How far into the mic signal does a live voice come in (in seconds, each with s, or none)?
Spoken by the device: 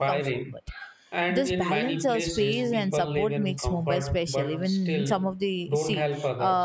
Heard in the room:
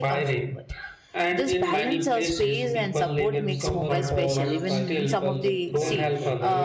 3.3 s